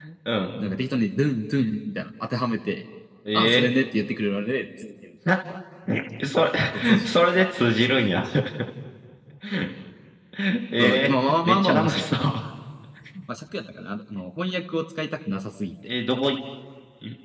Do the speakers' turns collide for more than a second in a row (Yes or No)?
Yes